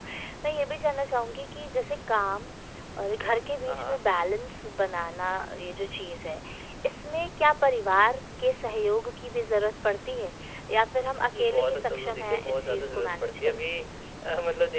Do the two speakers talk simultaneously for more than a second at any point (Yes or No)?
Yes